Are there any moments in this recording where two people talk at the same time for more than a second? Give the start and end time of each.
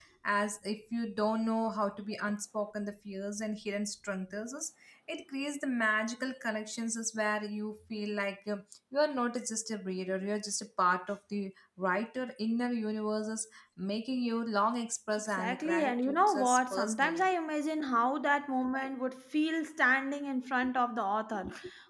15.3-17.2

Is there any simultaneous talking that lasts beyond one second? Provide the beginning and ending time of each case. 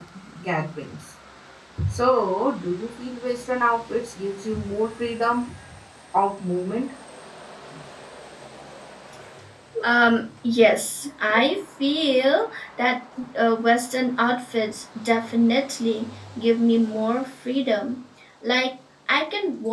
none

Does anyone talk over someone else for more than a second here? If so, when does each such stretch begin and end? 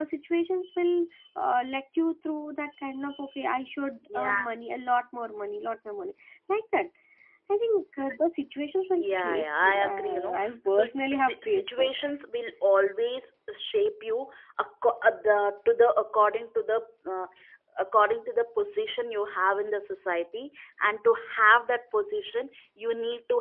9.0-11.9

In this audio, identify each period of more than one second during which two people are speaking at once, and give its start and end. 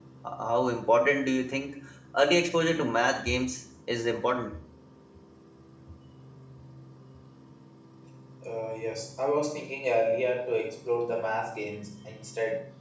none

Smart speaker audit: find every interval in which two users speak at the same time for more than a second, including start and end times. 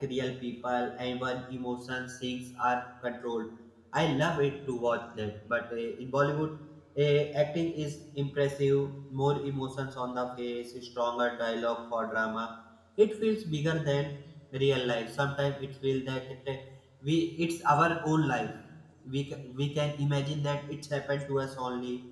none

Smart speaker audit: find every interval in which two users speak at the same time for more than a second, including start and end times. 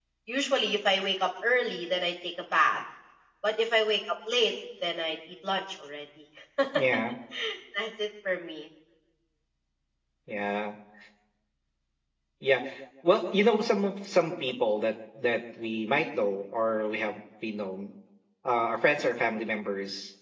none

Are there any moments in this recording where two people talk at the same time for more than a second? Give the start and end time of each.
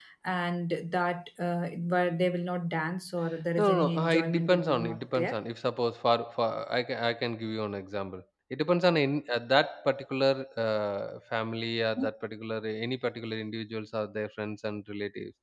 3.6-5.4

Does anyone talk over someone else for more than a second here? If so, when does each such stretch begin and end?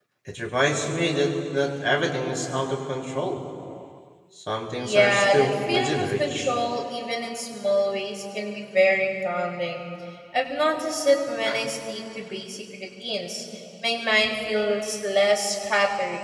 4.8-6.6

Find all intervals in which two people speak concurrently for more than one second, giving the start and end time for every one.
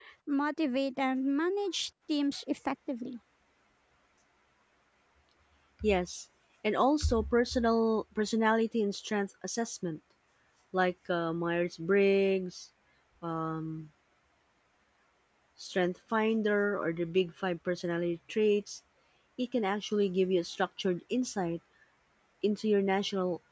none

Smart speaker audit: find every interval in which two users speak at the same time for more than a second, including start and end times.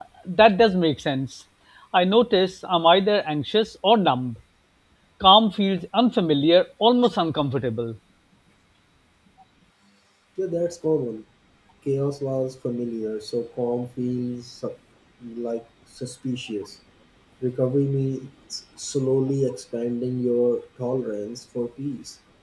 none

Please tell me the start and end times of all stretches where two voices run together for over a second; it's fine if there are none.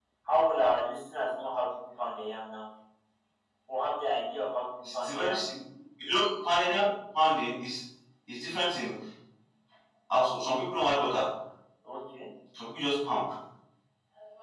none

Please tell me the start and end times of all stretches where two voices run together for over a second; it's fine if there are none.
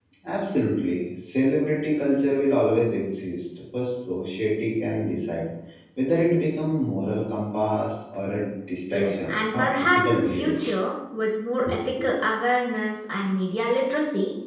8.9-10.5

